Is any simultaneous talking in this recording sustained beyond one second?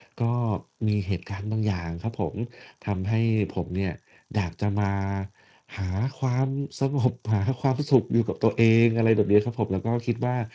No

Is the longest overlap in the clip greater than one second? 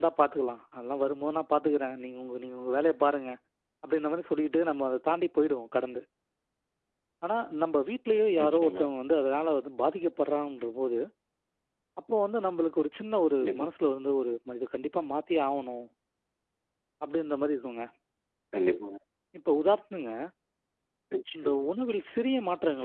No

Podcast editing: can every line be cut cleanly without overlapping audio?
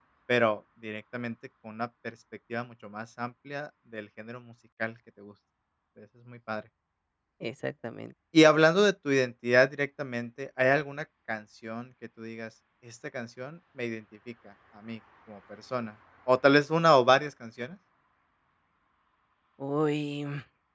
Yes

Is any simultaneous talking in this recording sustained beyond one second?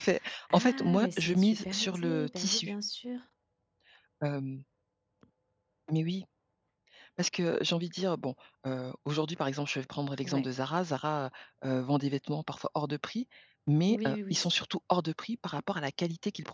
Yes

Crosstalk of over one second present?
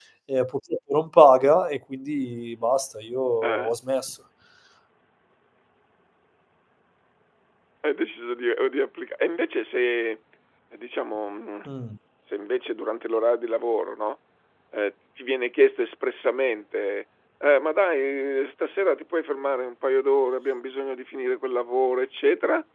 No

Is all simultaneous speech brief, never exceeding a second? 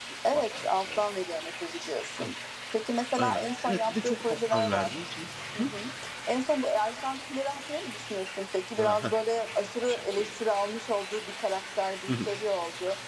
No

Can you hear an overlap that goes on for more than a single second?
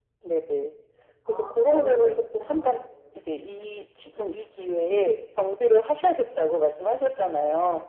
Yes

